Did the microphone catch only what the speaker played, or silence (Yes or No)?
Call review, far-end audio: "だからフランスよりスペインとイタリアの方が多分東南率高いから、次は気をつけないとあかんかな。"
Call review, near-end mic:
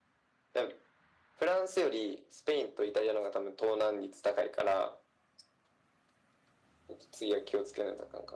Yes